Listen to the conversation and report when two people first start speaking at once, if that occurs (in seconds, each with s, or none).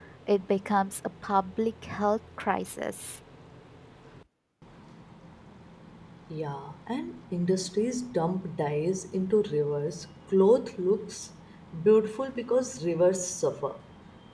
none